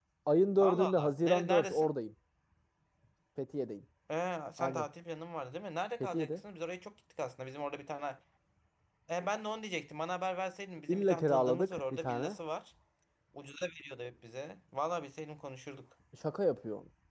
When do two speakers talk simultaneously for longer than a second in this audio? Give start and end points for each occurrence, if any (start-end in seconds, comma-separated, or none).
0.6-1.9, 10.9-12.4